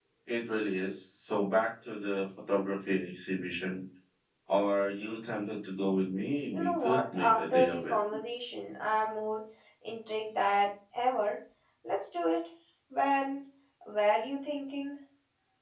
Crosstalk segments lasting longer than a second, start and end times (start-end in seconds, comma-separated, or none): 6.5-8.0